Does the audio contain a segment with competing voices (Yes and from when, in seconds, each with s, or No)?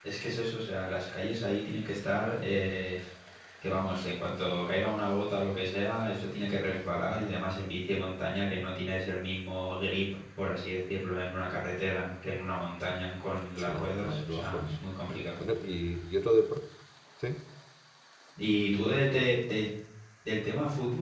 Yes, from 13.6 s